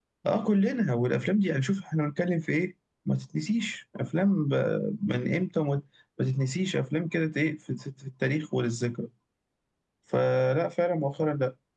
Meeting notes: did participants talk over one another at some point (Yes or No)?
No